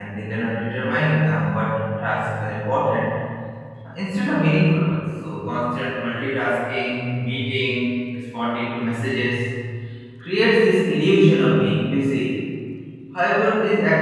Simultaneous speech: No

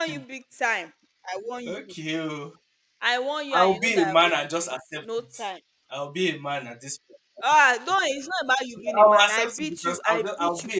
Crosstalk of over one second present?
Yes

